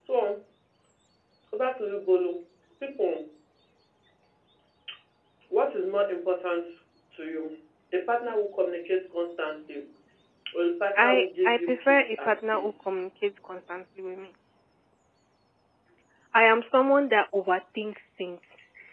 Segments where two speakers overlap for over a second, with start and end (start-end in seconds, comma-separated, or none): 10.9-12.9